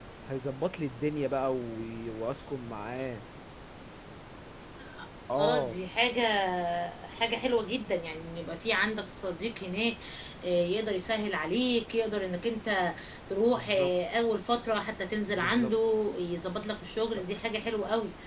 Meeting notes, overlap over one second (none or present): none